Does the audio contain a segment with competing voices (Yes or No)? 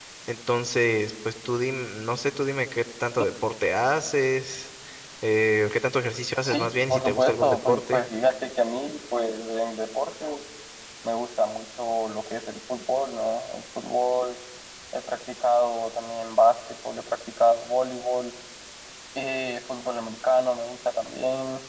Yes